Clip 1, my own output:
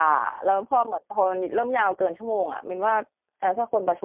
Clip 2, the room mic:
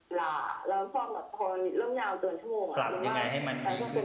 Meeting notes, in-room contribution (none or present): present